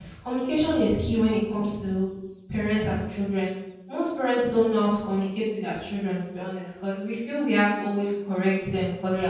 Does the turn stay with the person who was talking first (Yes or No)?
Yes